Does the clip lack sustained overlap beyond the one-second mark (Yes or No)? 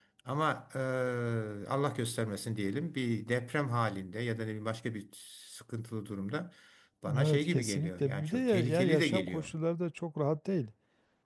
No